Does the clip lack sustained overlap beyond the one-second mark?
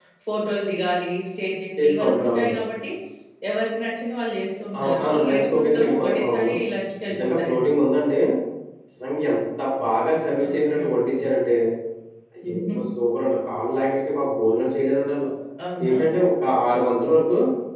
No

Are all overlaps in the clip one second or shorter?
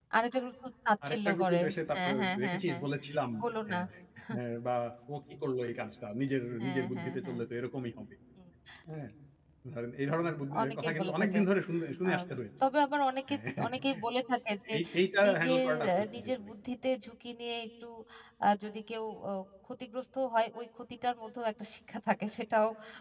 No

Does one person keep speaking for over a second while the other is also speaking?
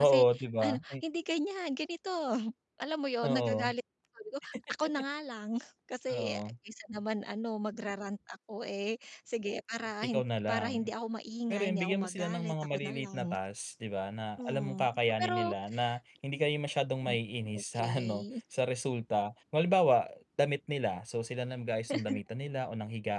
Yes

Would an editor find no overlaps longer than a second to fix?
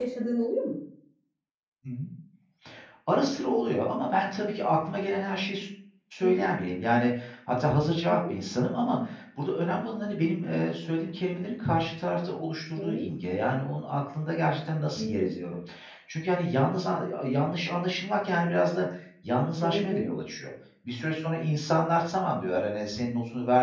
Yes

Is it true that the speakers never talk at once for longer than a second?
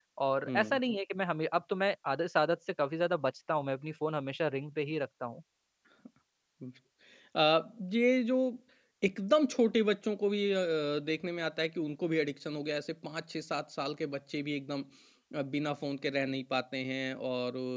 Yes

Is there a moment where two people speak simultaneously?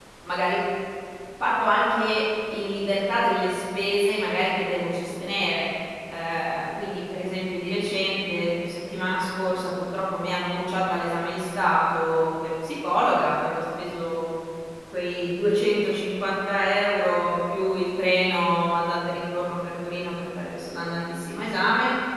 No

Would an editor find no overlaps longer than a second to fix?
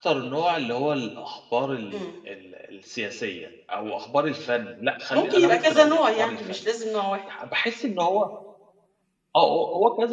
No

